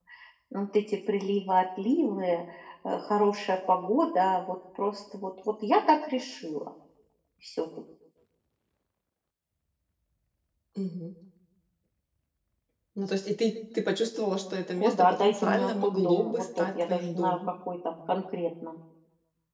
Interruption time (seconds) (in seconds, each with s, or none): 14.8 s